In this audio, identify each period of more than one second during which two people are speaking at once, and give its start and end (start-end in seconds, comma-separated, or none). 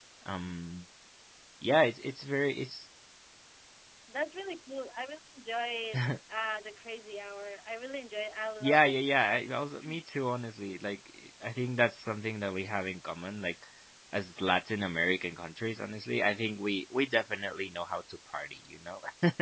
none